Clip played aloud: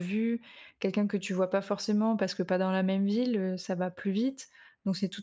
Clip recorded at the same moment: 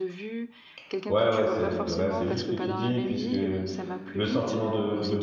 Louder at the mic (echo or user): user